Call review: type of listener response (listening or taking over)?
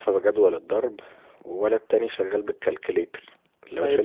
listening